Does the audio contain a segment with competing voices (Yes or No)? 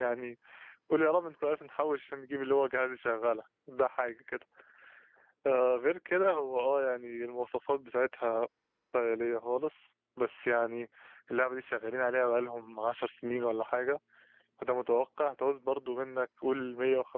No